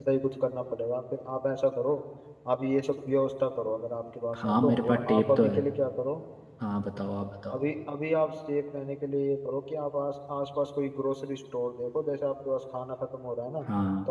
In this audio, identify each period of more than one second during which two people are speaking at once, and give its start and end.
4.3-5.6

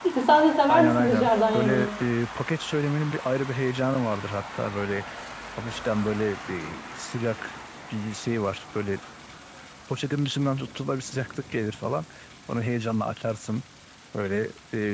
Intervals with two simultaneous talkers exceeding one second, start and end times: 0.7-1.9

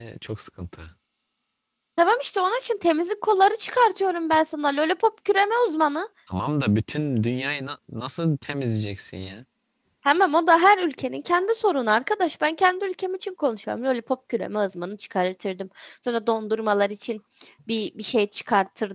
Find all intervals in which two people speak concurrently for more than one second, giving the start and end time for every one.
none

